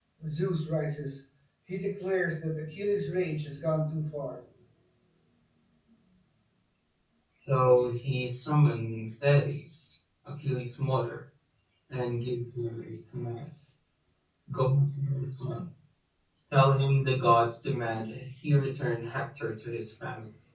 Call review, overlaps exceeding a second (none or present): none